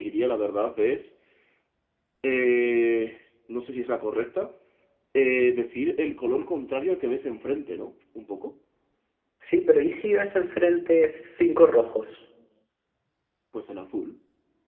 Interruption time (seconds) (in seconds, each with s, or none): none